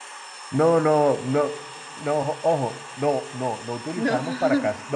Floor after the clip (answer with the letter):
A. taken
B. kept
B